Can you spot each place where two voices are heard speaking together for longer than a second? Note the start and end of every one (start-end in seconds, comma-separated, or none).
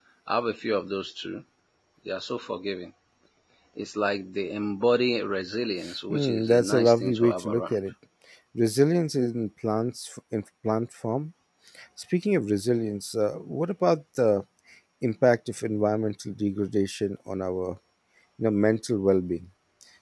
6.1-7.8